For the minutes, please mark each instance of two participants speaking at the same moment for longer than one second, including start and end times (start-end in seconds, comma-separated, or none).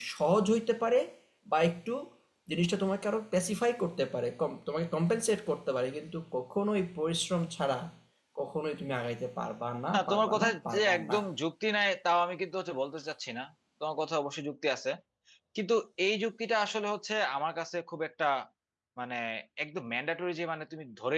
9.9-11.2